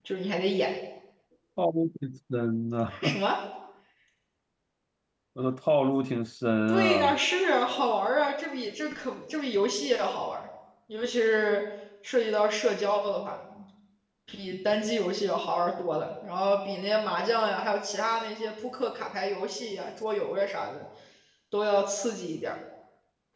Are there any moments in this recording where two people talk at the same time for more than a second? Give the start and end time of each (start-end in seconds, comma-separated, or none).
none